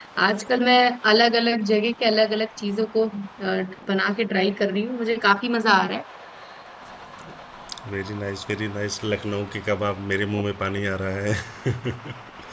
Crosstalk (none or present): none